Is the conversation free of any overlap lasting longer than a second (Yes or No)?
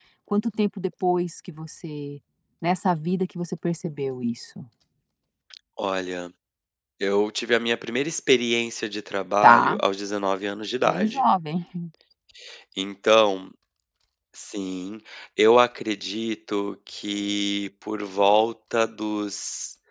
Yes